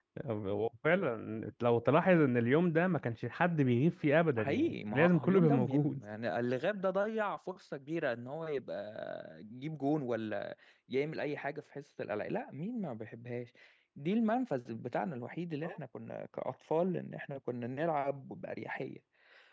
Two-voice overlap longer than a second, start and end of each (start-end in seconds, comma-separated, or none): 4.4-6.0